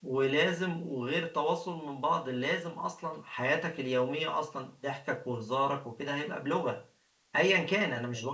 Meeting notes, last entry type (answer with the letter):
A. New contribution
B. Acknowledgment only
B